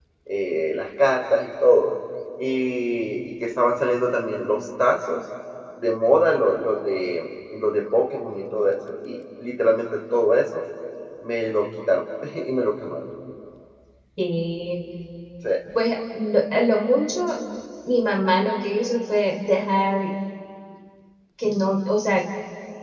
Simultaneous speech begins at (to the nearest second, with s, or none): none